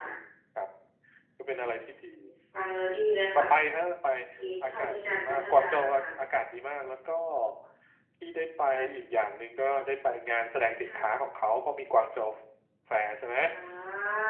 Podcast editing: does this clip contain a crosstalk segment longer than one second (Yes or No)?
Yes